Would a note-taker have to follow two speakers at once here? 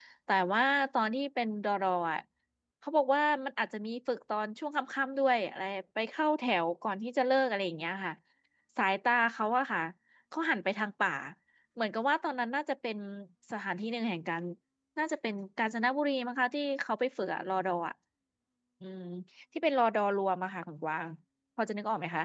No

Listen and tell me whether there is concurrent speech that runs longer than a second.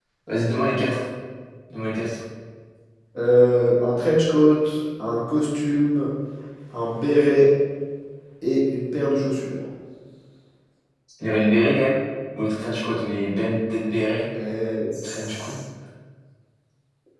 No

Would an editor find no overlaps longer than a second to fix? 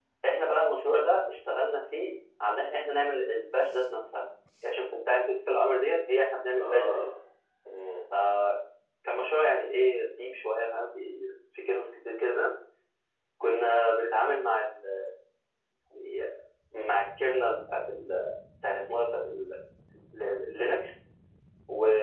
Yes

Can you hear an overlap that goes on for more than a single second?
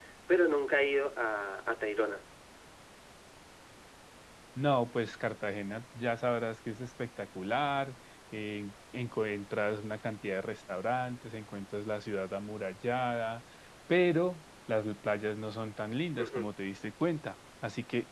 No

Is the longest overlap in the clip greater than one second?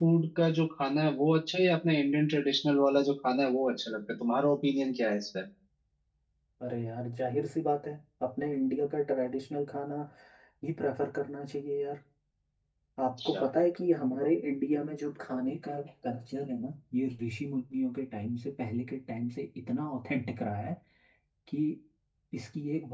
No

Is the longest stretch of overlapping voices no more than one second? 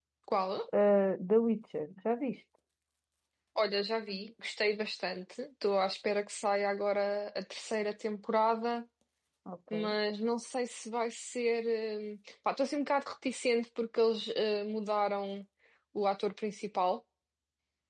Yes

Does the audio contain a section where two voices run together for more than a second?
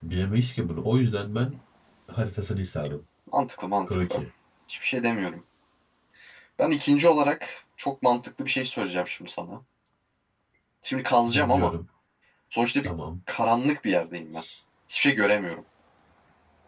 No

